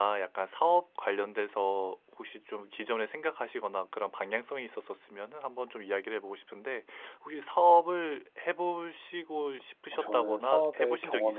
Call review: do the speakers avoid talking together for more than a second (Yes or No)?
No